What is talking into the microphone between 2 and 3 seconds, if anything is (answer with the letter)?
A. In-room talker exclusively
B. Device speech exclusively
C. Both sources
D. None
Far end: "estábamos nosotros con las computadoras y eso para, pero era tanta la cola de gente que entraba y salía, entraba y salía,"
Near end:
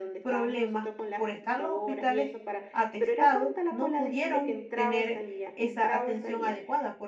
C